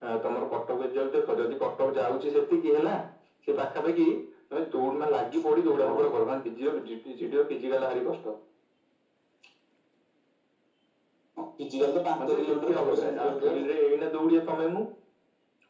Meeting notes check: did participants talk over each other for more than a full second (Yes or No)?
Yes